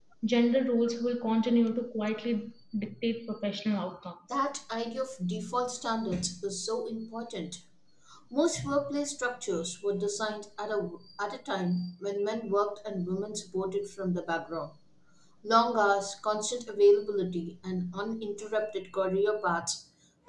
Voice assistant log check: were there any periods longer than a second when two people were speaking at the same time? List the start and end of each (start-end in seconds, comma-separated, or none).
none